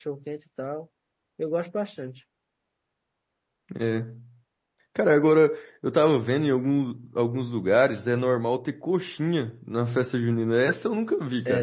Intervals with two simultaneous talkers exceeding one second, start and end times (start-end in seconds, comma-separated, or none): none